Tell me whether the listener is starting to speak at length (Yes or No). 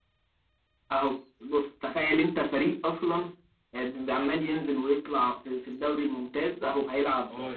Yes